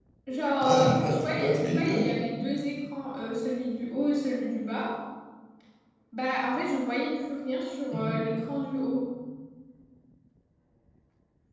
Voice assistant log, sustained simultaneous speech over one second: present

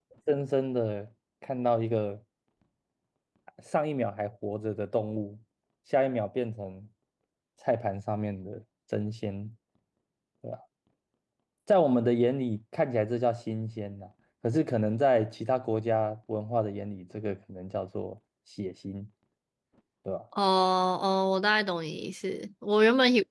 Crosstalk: none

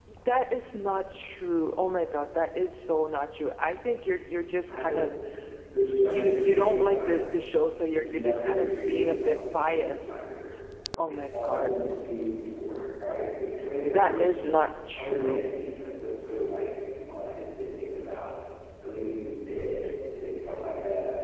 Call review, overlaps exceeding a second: present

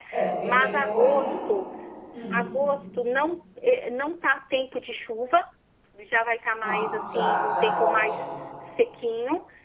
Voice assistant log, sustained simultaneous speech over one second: present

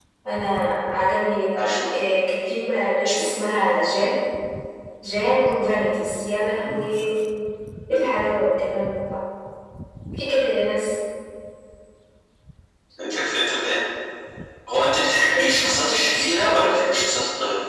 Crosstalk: present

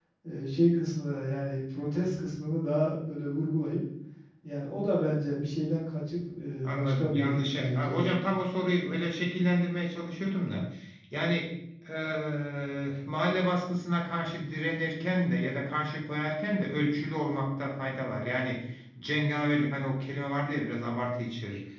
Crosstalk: present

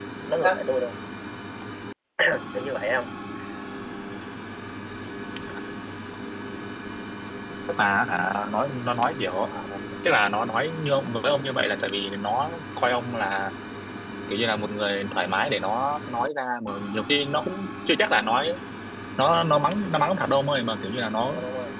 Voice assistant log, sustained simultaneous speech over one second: none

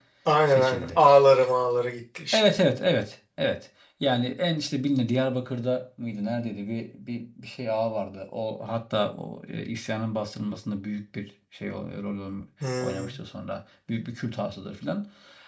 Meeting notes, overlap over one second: none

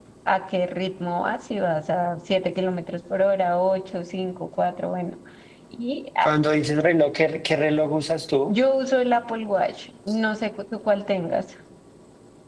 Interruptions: none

